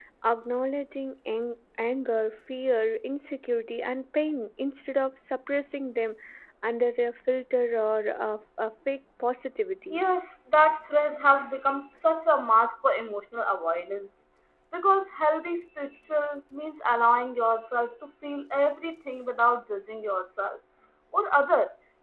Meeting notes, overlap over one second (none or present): none